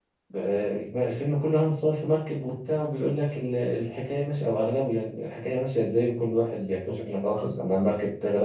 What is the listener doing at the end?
listening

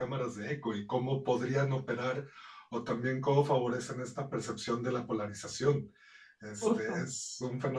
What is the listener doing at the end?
listening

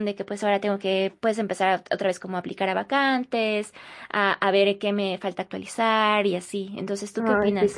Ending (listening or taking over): taking over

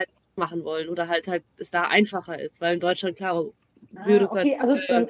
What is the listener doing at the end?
taking over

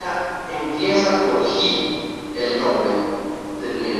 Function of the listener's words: taking over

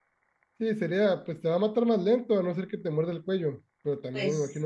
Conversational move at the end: listening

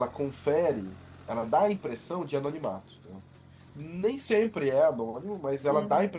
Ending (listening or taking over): listening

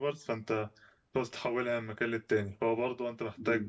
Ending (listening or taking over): listening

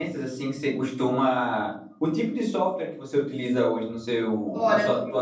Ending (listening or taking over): taking over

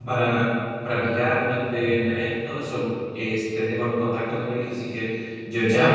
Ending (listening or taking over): listening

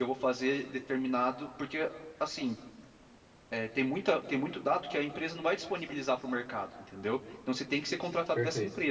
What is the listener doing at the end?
listening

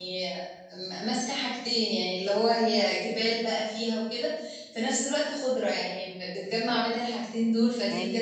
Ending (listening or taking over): taking over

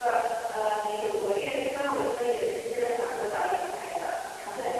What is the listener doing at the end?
taking over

